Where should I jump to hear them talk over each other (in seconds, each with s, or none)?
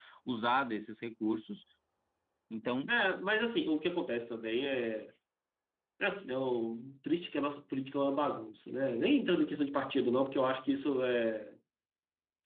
none